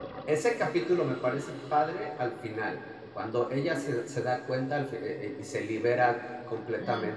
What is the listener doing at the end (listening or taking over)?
taking over